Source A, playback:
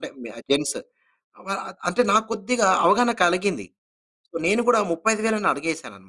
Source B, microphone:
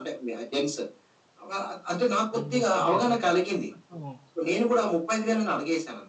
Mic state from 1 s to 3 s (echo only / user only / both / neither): both